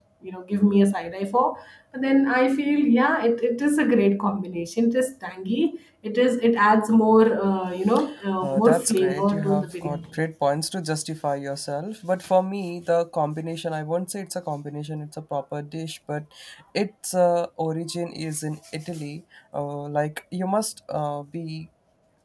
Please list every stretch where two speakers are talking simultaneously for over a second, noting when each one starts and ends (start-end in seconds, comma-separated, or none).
8.4-10.0